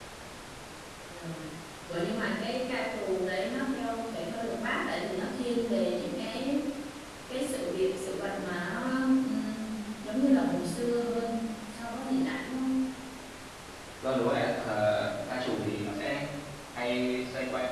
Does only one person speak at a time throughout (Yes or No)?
Yes